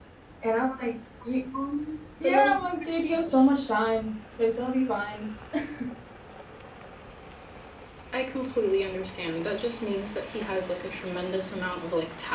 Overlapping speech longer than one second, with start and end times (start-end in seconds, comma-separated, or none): 2.2-3.4